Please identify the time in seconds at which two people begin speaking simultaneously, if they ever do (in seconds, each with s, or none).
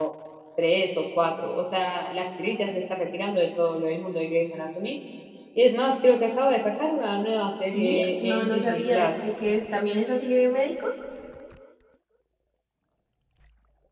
7.7 s